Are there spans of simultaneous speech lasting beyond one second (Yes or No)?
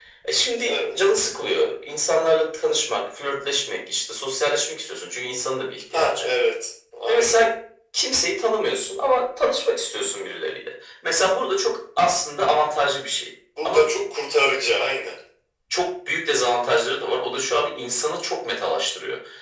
No